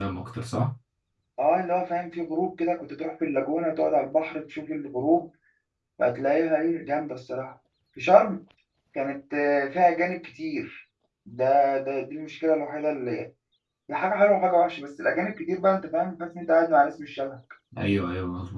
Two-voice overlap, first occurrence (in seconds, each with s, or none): none